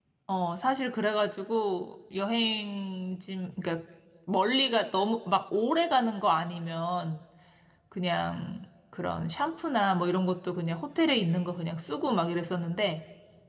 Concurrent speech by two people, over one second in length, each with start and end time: none

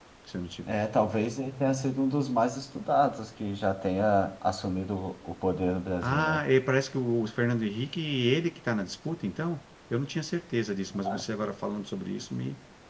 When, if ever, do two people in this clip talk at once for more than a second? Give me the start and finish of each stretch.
none

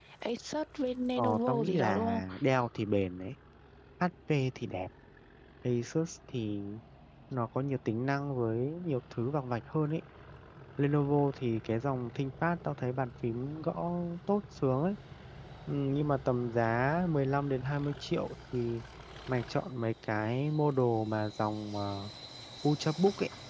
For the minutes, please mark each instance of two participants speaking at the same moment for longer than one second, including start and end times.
1.2-2.4

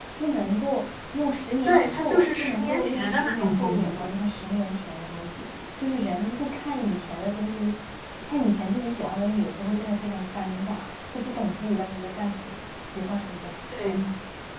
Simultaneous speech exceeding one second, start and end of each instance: 1.6-4.1

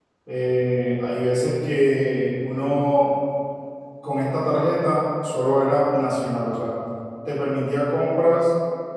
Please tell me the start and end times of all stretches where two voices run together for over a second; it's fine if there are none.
none

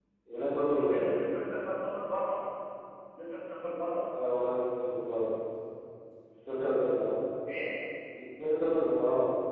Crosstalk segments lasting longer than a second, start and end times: none

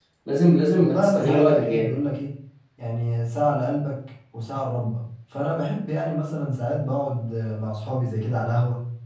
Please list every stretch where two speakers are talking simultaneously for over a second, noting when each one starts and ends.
0.8-2.0

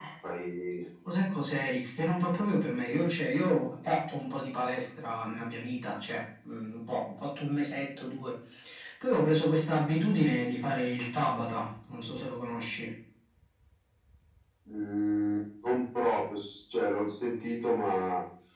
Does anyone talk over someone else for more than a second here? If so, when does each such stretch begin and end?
none

